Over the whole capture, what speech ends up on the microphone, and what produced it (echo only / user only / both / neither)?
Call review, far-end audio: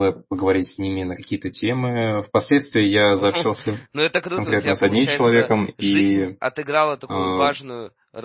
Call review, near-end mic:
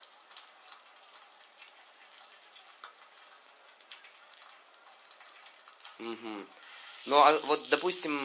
user only